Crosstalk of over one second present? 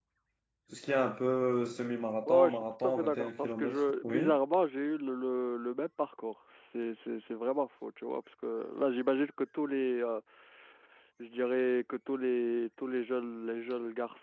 Yes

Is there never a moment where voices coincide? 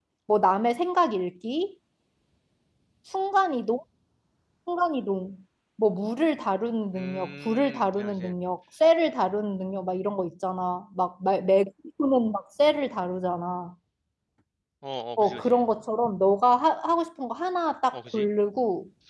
No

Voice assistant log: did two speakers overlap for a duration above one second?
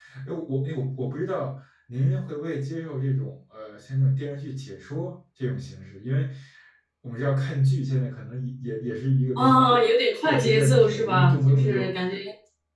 Yes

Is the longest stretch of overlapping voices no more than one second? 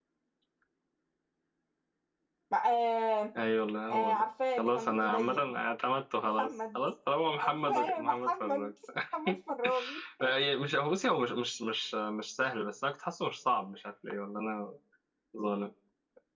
No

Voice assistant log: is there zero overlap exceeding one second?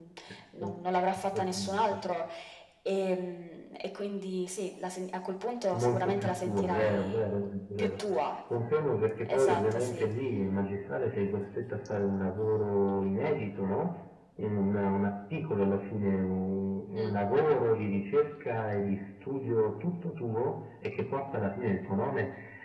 No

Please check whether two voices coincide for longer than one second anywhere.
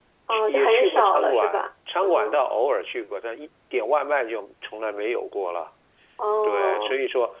Yes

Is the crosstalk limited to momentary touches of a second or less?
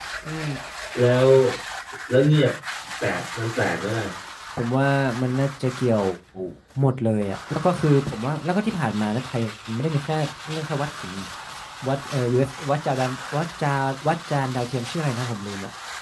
Yes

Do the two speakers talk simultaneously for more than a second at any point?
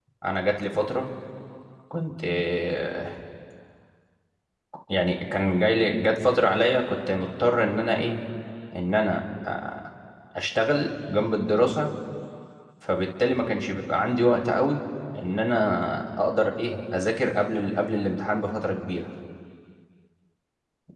No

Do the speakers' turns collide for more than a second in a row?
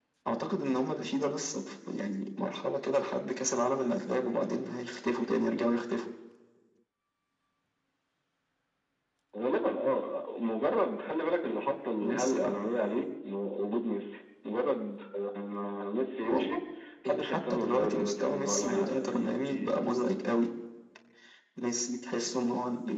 Yes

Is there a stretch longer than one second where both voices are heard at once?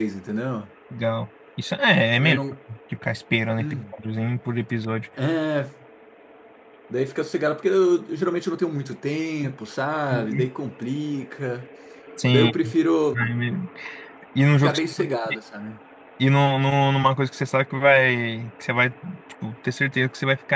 No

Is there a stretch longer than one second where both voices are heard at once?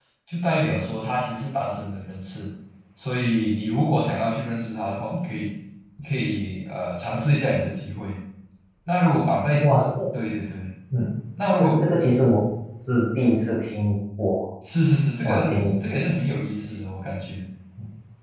No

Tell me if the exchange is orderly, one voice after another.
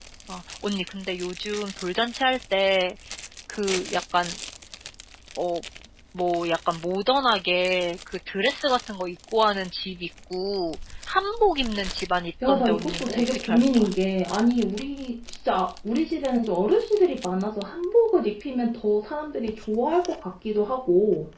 No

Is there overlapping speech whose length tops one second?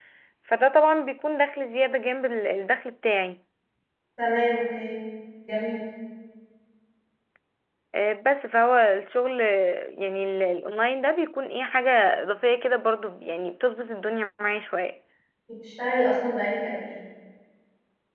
No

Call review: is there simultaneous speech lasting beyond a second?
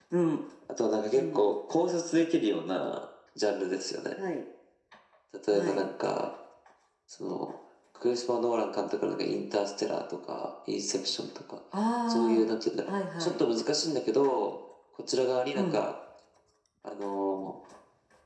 No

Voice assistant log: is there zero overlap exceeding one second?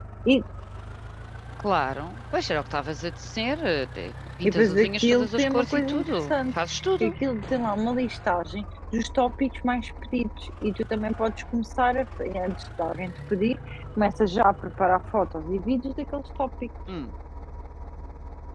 No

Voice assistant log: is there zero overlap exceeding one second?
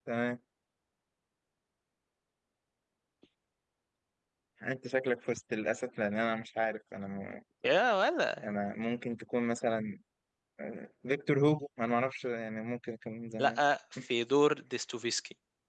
Yes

